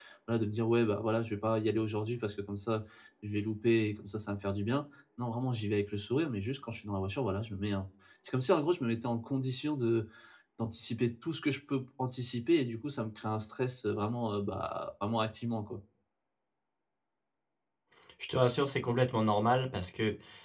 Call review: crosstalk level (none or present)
none